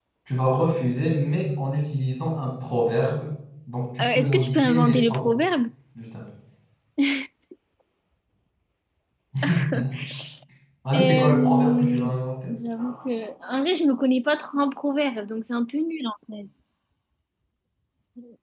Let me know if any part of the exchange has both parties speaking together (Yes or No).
Yes